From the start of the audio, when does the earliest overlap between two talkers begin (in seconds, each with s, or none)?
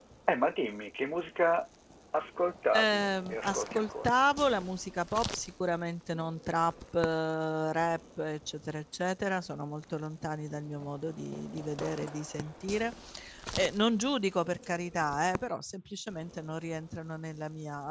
2.7 s